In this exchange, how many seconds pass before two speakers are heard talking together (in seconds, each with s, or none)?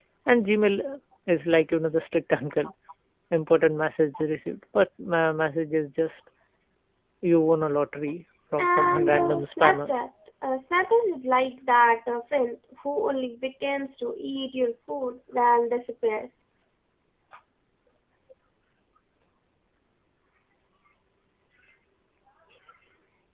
8.6 s